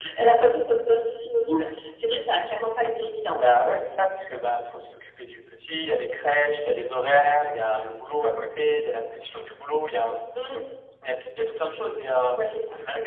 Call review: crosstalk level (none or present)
none